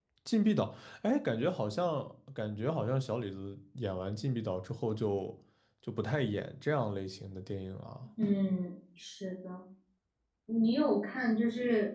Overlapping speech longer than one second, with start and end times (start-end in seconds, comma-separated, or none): none